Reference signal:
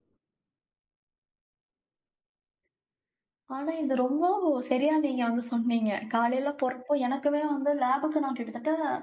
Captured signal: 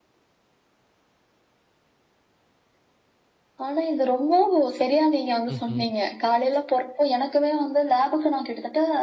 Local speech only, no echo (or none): ம்ஹ்ம்.